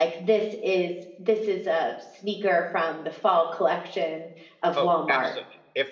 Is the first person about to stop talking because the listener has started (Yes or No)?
Yes